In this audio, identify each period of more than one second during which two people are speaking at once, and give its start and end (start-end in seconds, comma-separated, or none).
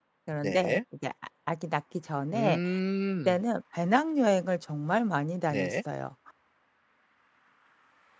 none